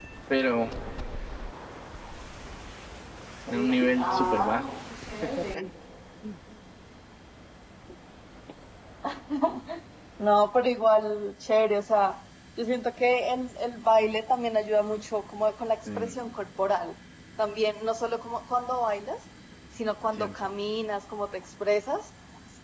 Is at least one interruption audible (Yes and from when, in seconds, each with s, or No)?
Yes, from 3.5 s